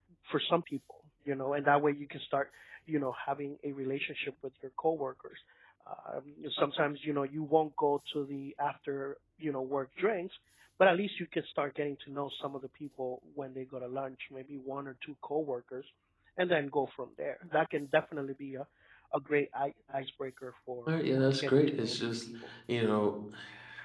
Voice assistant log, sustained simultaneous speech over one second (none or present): present